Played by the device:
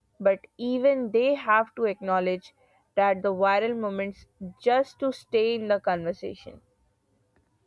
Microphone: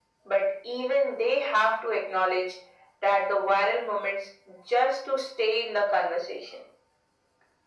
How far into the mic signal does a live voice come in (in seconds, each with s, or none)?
none